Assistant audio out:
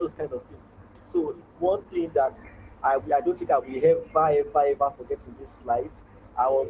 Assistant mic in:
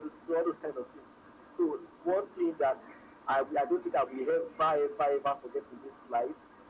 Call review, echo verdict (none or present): present